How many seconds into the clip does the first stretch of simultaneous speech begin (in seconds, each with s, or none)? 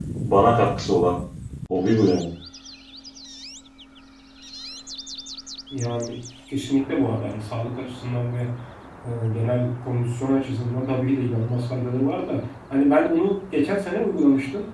none